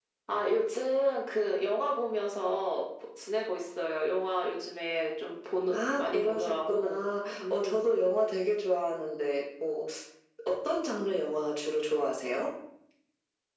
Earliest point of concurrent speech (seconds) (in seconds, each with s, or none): 5.7 s